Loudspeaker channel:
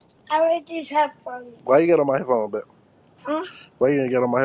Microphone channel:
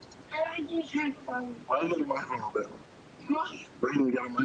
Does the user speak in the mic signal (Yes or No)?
No